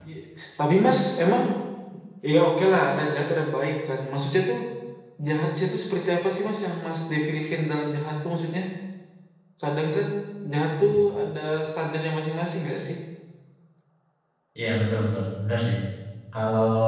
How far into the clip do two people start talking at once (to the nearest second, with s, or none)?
none